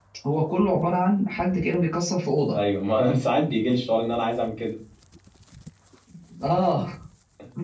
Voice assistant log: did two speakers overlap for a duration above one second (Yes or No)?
No